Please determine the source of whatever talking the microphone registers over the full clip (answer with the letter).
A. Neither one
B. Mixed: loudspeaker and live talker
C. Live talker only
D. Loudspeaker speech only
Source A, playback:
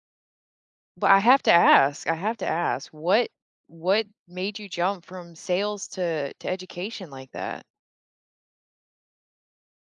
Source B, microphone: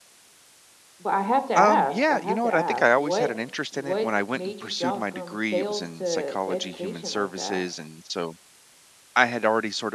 B